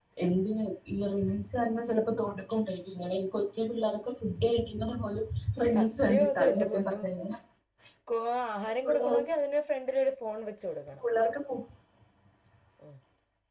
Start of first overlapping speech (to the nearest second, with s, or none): 6 s